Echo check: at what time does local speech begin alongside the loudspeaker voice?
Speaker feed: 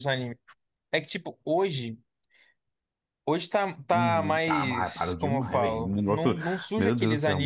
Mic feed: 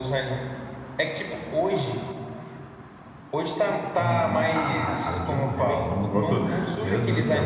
none

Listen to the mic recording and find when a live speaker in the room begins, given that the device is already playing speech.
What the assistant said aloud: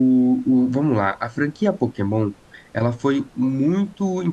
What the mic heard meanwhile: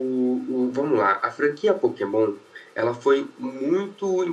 none

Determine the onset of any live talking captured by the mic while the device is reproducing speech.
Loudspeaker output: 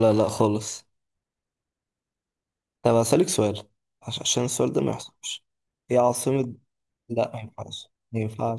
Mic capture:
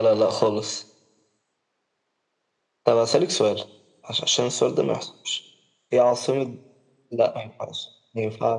none

